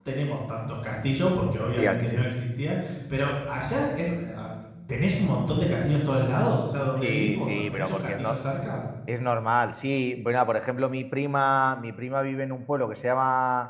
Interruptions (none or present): present